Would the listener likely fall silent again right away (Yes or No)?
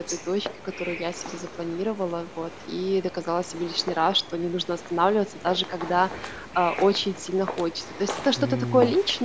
Yes